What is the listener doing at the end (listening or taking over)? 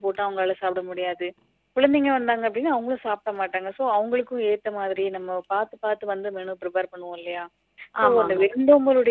listening